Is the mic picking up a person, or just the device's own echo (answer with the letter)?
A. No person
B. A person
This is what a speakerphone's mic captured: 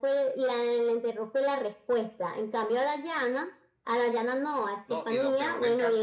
B